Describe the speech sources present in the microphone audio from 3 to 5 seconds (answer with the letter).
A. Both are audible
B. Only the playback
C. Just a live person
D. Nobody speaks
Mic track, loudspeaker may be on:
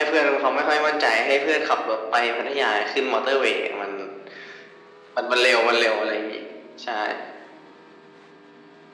B